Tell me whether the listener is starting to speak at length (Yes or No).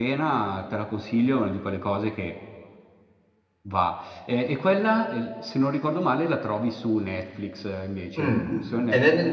Yes